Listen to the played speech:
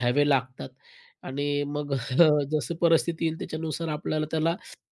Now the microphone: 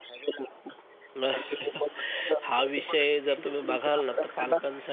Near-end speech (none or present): present